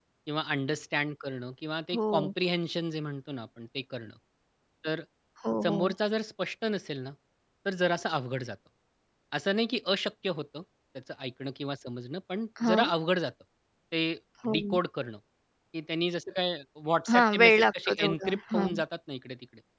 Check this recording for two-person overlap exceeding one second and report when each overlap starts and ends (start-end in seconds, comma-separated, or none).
17.1-18.7